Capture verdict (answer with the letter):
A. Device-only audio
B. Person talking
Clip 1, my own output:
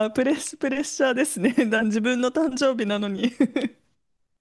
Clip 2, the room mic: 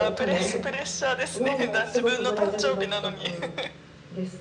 B